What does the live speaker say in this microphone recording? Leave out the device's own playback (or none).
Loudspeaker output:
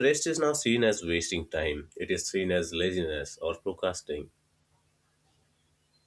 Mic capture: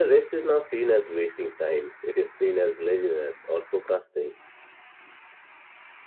none